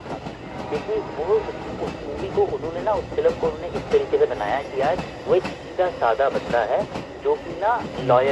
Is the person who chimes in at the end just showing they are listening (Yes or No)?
Yes